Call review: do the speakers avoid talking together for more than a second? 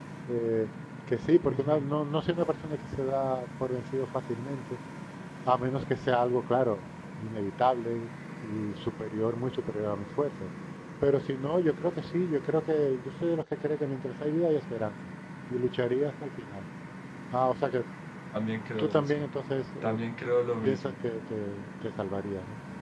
Yes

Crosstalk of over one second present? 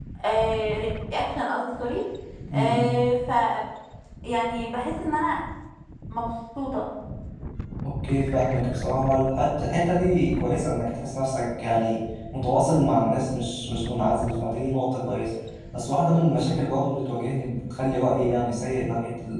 No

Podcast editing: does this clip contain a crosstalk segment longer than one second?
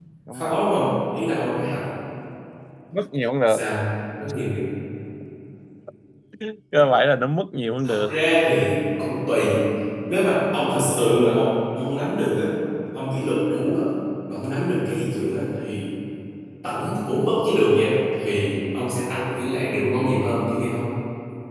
No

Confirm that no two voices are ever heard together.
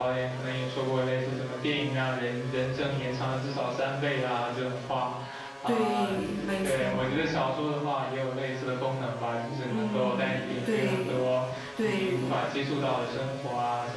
No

